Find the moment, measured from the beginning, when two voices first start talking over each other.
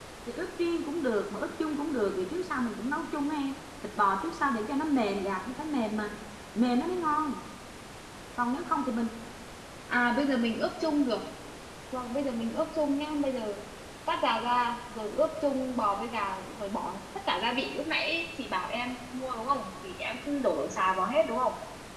none

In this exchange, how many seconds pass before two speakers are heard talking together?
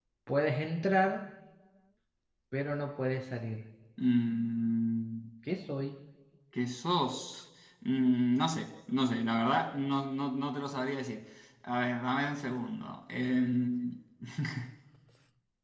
none

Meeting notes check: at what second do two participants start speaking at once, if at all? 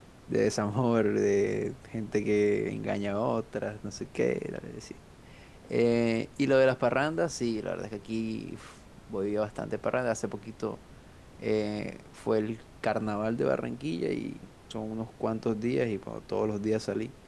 none

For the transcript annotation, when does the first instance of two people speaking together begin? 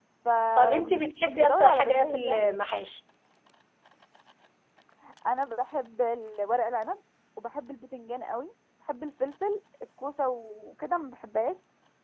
0.6 s

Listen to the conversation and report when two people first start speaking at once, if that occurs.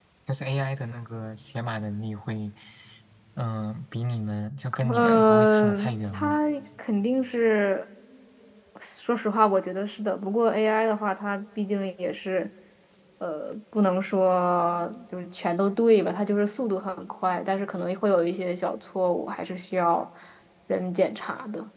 4.8 s

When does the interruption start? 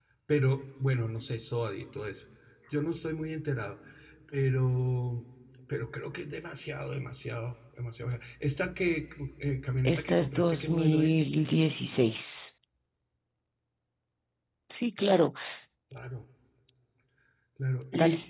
9.9 s

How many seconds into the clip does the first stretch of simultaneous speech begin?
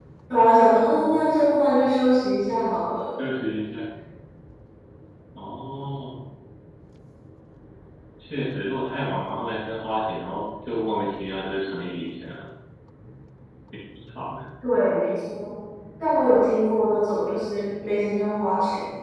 none

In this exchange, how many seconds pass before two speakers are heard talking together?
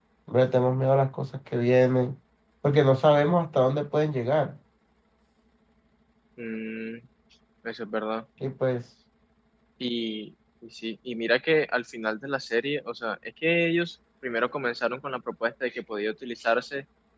none

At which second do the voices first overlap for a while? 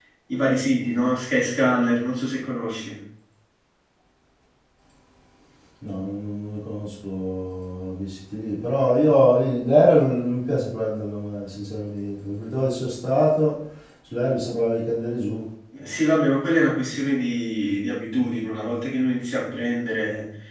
none

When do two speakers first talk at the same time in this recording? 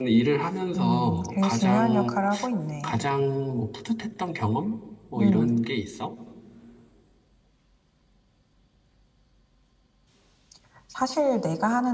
0.8 s

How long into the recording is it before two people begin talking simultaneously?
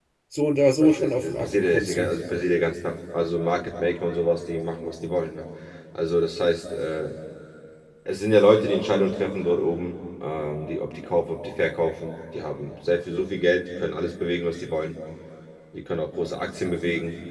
0.8 s

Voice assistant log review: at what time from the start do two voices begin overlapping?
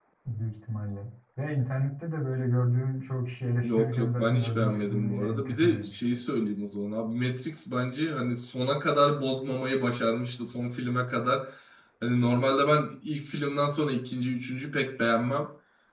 3.6 s

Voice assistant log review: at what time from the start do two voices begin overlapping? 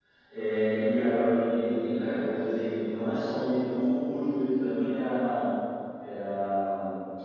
none

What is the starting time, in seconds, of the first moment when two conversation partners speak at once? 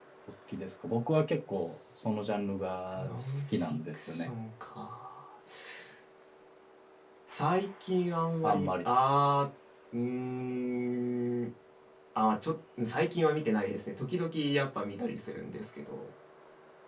3.0 s

